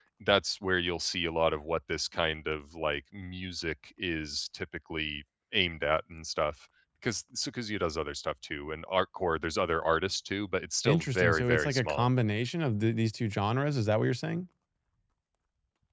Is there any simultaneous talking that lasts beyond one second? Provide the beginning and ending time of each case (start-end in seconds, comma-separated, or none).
10.8-12.1